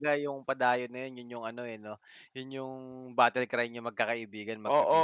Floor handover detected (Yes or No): Yes